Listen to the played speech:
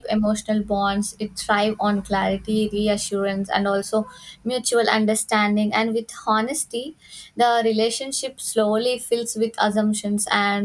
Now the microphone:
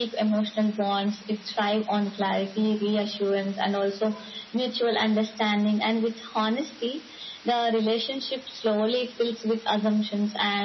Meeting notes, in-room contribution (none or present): none